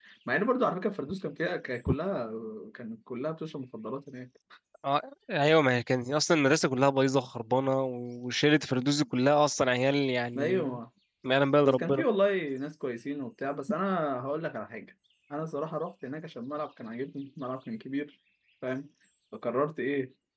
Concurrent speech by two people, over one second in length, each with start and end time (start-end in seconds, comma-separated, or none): none